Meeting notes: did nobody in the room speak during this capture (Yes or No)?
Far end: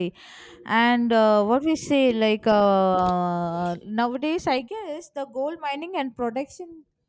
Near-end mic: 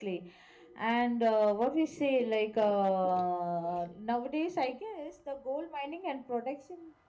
Yes